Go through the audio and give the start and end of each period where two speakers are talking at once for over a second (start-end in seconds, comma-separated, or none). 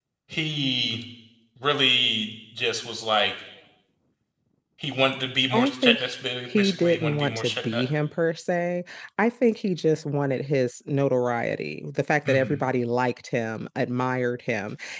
6.5-7.8